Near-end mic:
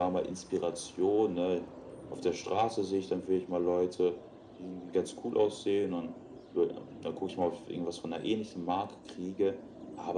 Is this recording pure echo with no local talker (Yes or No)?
Yes